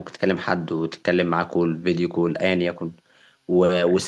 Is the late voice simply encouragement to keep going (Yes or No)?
Yes